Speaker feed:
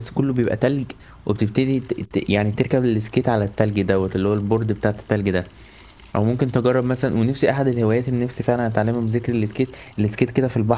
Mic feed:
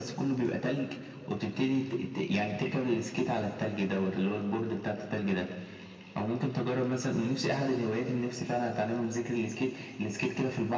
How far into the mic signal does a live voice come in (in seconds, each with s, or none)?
none